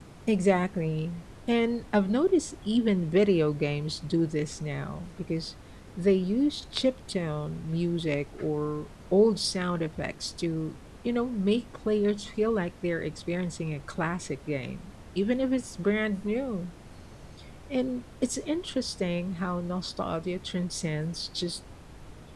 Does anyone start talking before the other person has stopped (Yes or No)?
No